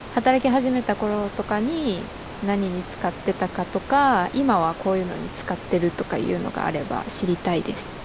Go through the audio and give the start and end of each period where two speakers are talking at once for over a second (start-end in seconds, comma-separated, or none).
none